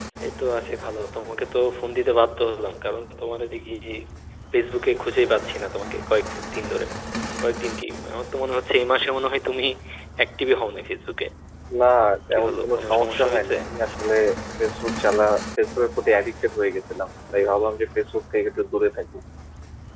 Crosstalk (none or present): present